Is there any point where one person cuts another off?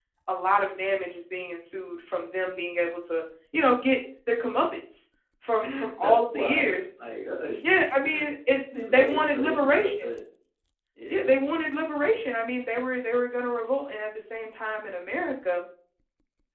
Yes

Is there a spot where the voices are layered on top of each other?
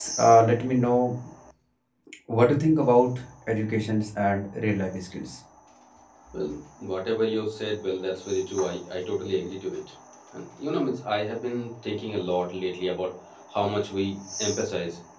No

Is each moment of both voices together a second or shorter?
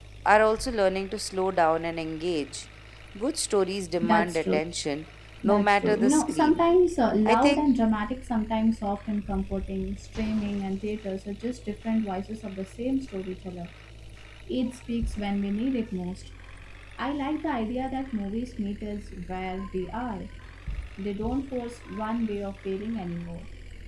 No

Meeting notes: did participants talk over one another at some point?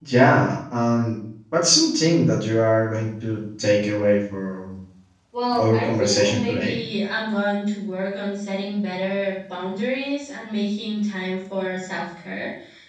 Yes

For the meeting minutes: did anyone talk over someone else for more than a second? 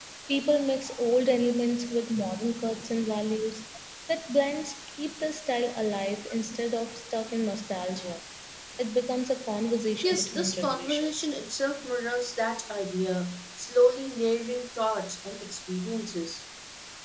Yes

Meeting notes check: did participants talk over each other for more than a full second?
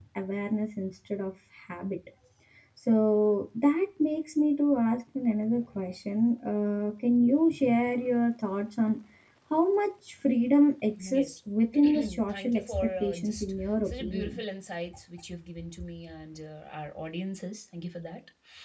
Yes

